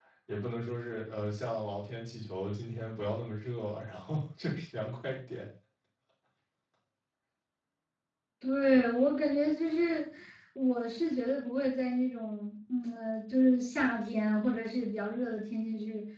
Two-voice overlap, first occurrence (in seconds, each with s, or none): none